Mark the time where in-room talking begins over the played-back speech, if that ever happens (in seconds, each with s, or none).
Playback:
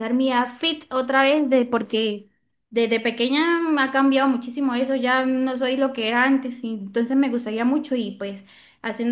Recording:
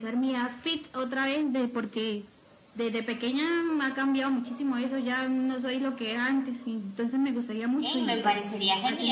7.8 s